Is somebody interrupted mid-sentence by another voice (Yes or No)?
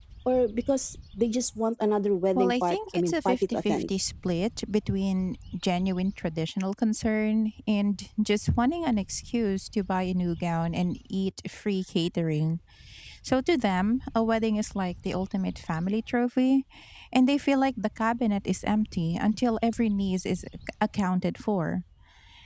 Yes